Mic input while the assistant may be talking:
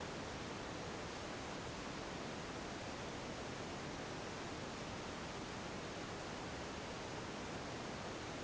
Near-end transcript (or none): none